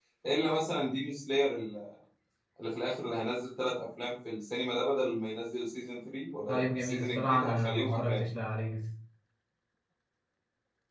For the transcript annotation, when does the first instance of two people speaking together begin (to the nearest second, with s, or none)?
6 s